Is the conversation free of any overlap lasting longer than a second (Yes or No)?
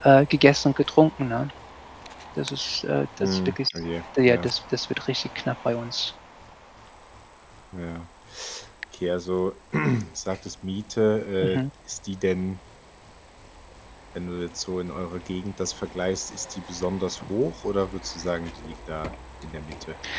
Yes